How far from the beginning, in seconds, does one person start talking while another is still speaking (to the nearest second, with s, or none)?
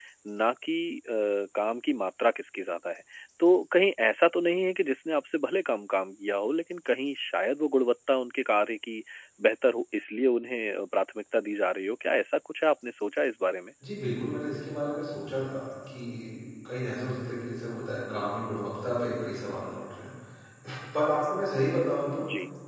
none